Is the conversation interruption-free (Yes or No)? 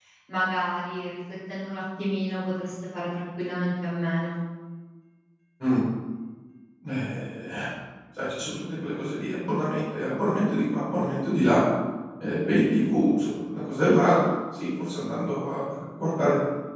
Yes